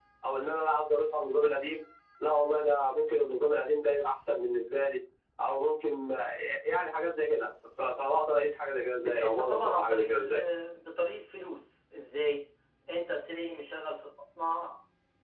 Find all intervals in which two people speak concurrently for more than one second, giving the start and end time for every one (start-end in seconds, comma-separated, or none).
8.9-10.4